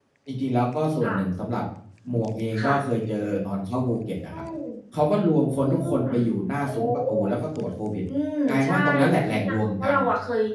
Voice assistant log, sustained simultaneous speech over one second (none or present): present